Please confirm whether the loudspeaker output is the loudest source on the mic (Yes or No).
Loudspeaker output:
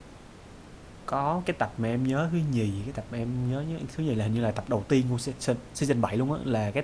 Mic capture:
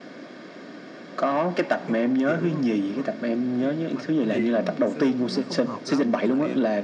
Yes